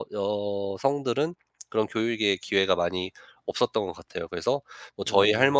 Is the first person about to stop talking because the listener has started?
No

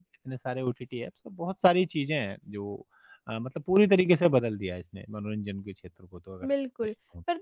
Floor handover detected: Yes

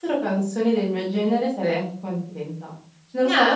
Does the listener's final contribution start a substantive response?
No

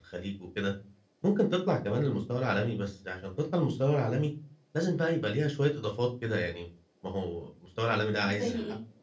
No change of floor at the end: Yes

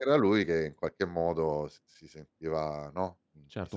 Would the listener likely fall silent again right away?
No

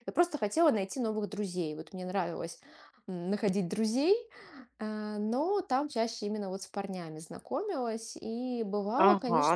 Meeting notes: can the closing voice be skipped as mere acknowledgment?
No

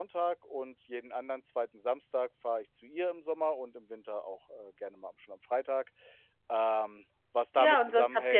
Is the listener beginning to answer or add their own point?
Yes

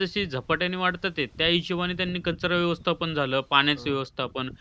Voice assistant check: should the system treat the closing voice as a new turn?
No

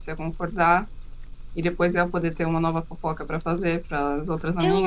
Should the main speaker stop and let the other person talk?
Yes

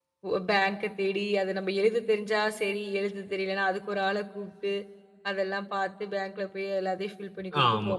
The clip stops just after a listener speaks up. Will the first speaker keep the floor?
No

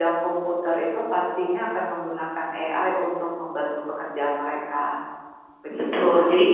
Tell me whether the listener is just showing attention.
No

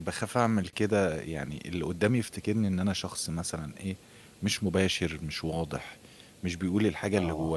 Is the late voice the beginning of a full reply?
No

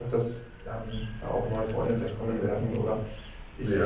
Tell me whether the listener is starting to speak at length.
Yes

